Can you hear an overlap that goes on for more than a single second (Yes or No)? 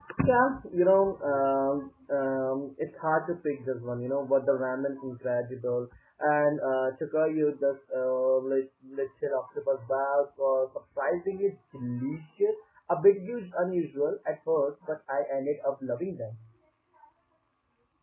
No